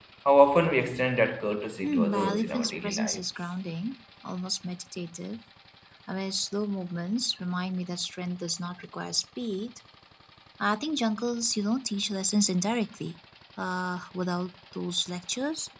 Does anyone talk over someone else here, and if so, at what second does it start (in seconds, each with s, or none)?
1.8 s